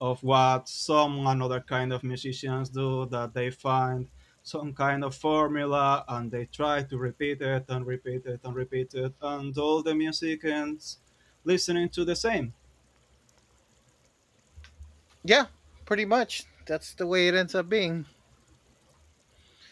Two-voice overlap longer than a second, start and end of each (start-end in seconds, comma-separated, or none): none